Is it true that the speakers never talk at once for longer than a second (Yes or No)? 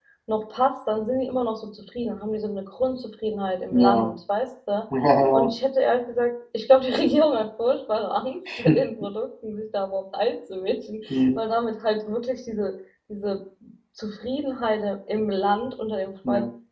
Yes